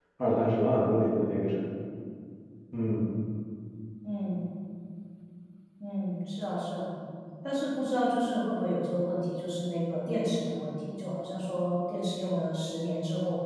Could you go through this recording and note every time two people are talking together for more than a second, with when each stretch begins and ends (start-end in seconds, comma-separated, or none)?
none